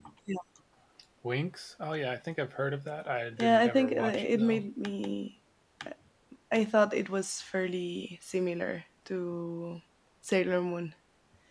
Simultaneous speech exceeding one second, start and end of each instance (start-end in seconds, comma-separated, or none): 3.4-4.7